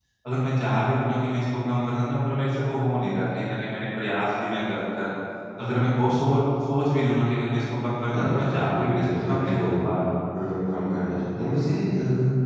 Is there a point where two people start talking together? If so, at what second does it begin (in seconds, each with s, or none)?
8.1 s